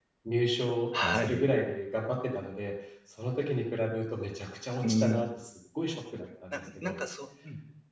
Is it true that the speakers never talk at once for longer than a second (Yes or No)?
Yes